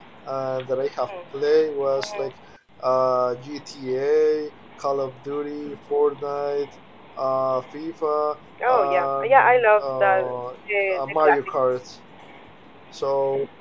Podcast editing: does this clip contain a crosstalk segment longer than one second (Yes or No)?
Yes